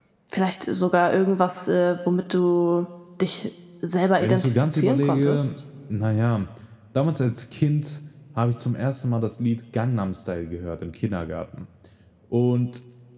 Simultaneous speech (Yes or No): Yes